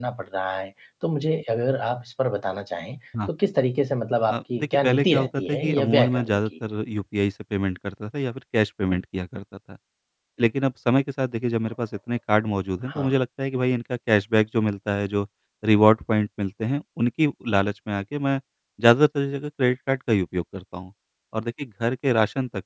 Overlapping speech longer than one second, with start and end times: 4.3-6.5

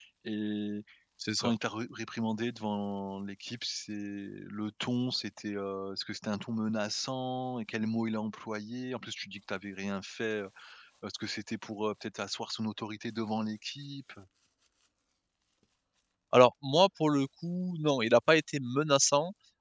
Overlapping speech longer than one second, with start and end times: none

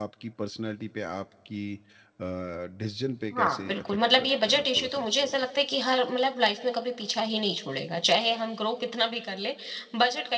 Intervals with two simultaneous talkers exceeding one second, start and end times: 3.4-5.4

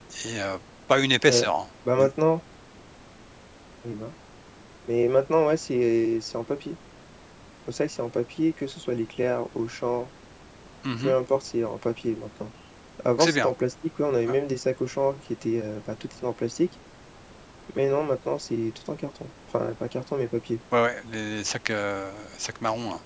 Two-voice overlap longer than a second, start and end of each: none

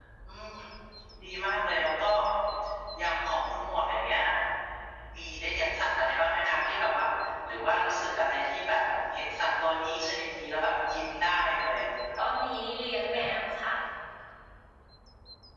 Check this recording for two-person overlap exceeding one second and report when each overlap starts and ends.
none

